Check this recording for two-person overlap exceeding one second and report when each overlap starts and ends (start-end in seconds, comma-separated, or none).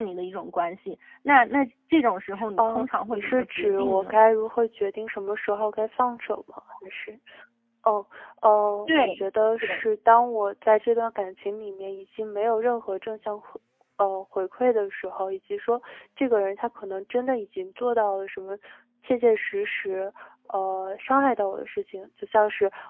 2.6-4.2